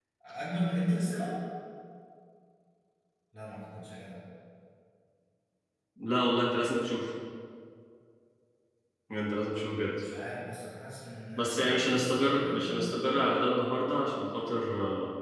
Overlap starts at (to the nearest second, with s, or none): 11 s